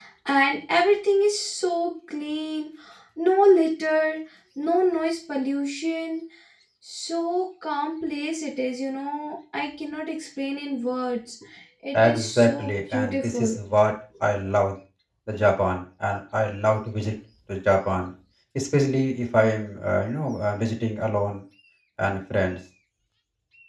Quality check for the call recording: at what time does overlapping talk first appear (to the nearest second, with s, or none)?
12 s